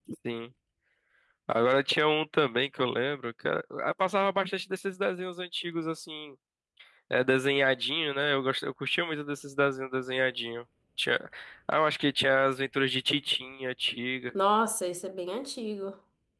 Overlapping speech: No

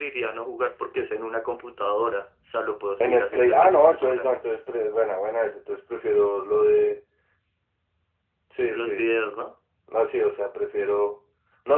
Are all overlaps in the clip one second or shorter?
No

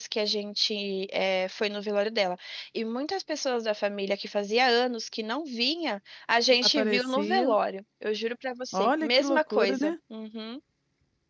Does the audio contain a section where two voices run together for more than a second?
Yes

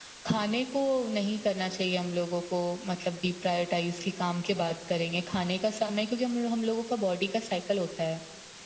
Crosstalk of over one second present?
No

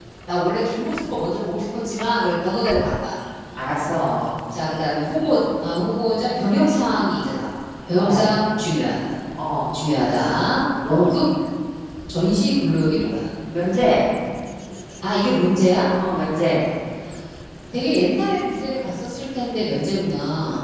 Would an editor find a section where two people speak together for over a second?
No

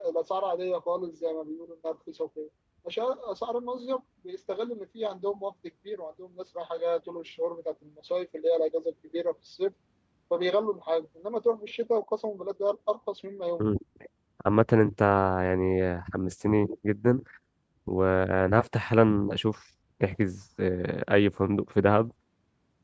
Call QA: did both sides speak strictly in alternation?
Yes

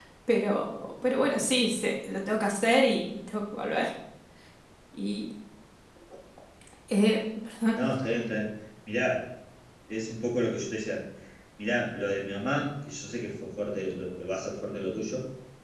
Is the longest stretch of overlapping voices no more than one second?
Yes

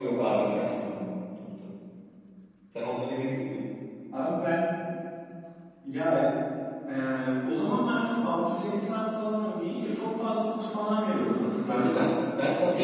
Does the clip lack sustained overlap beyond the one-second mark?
Yes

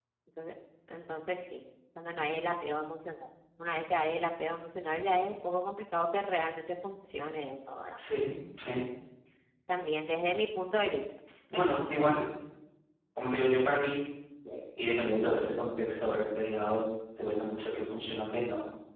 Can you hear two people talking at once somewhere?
No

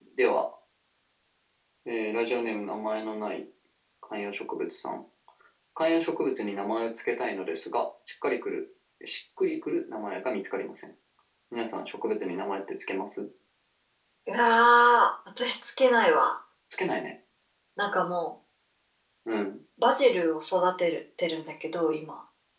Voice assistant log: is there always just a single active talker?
Yes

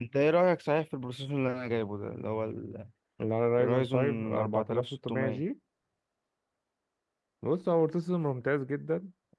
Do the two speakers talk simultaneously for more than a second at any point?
Yes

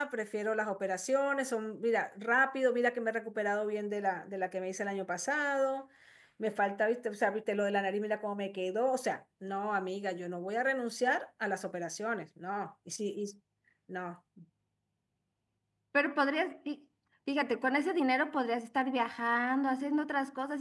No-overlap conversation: Yes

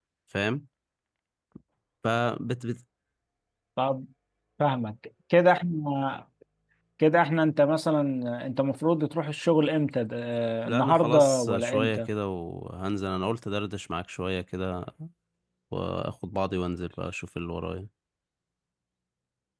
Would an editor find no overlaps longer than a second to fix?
No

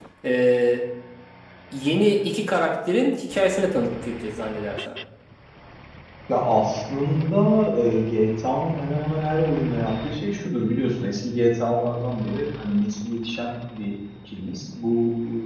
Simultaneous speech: No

